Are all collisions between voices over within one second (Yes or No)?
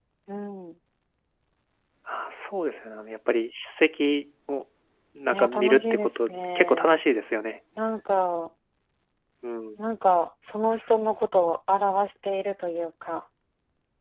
No